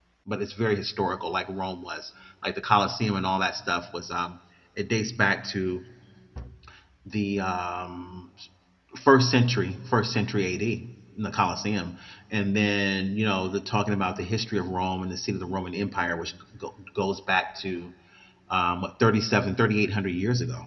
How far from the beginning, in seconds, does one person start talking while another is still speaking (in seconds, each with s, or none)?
none